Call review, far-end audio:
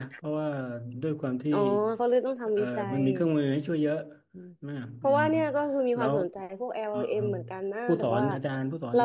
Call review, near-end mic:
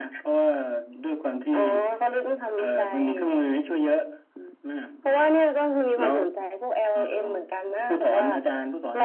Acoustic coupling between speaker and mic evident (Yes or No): Yes